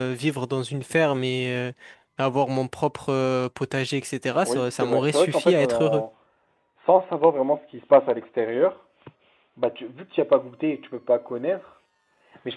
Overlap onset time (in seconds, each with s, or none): 4.4 s